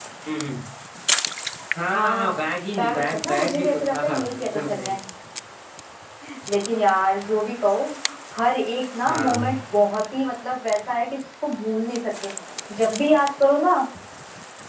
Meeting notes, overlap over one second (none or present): present